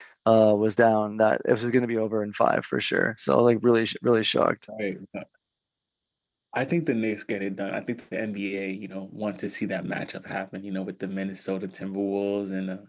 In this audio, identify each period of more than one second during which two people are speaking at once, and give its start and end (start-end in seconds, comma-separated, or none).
none